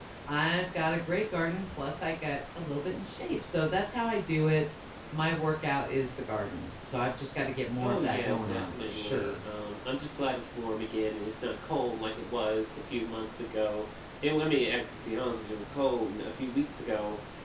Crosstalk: present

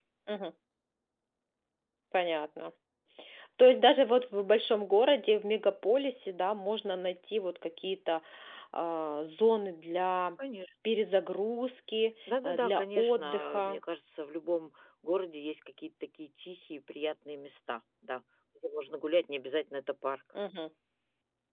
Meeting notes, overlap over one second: present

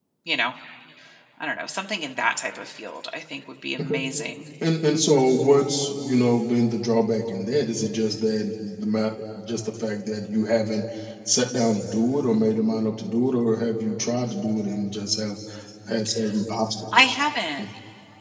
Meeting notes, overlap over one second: none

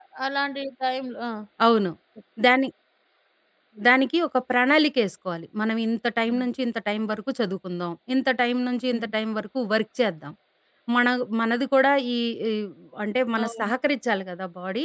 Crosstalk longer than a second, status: none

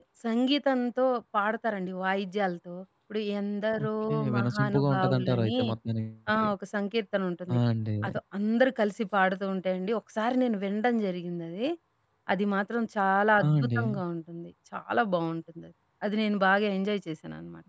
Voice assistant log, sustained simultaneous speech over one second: present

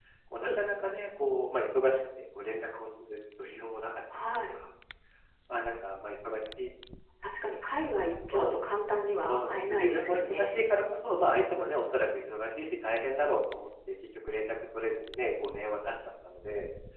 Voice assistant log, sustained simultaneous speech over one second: present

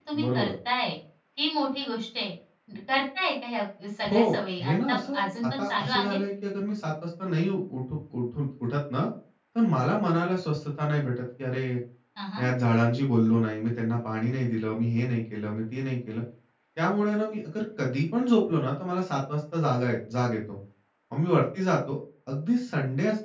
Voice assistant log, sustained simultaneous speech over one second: present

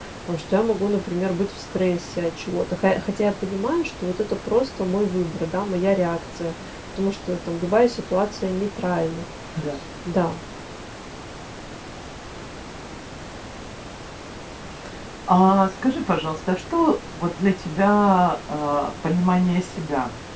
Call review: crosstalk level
none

